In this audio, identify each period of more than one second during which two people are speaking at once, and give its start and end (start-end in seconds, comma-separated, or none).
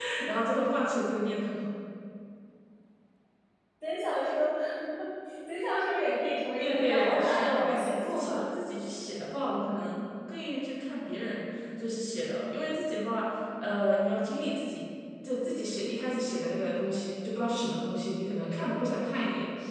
6.6-8.5